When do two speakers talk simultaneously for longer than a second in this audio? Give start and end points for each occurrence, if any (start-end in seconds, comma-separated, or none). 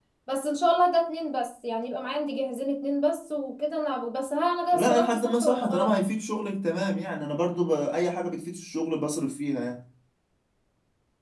4.7-6.0